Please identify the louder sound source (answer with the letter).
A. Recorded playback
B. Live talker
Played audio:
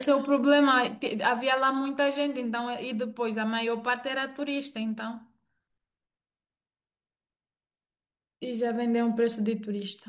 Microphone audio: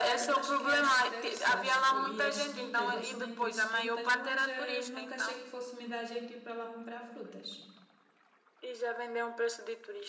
A